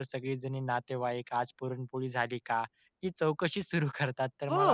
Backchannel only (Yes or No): Yes